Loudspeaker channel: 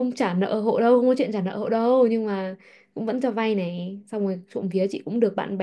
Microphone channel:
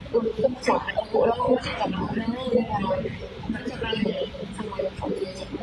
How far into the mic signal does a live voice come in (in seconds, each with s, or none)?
none